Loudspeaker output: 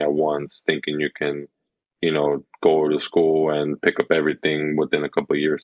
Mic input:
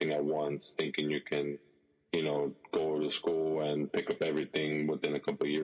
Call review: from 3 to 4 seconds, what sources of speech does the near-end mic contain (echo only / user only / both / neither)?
echo only